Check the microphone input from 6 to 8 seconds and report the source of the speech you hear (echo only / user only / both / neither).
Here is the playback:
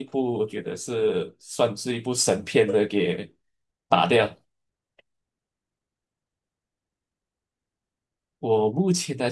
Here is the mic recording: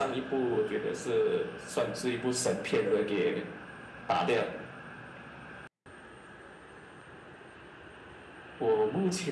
neither